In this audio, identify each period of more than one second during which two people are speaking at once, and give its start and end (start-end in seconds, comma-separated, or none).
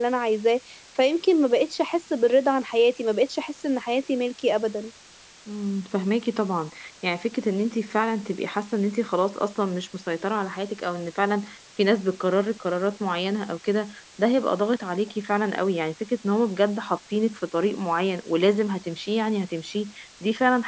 none